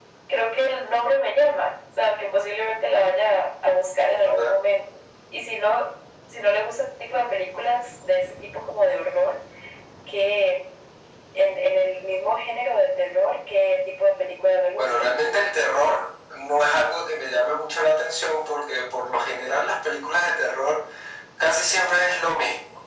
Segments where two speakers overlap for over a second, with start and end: none

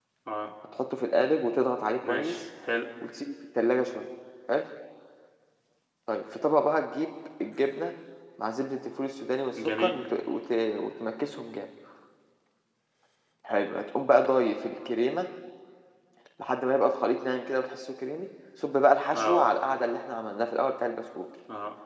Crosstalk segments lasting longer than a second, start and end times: none

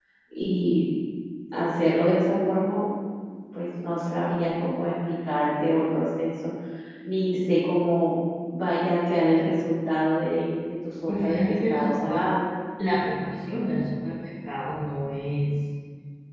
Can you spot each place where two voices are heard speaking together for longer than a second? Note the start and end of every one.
11.1-12.3

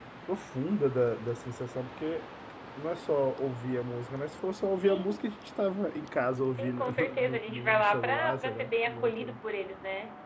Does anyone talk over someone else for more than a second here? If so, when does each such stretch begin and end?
6.5-9.4

